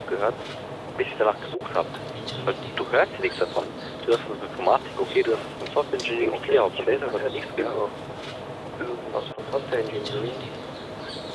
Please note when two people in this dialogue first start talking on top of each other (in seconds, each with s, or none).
6.2 s